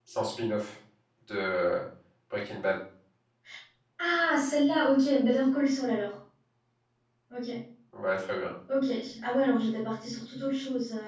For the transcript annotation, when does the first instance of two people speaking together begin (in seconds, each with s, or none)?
none